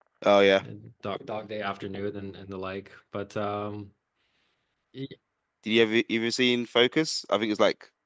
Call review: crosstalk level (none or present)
none